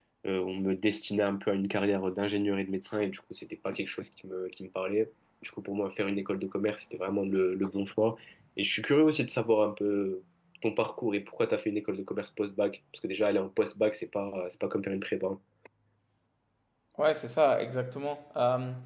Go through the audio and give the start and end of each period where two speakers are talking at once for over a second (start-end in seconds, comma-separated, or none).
none